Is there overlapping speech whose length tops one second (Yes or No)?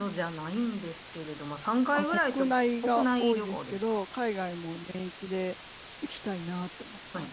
Yes